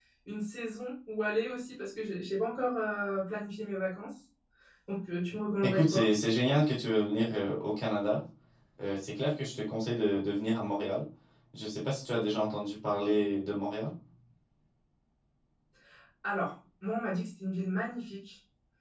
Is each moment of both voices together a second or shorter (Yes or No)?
Yes